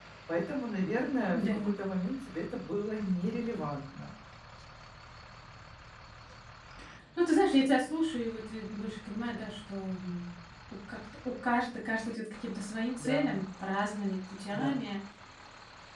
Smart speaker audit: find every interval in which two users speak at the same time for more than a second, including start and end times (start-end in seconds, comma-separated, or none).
none